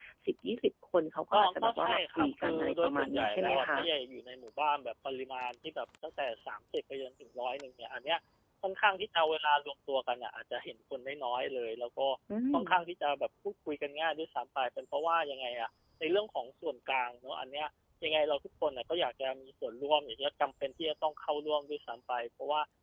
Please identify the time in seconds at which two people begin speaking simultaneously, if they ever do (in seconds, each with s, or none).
1.3 s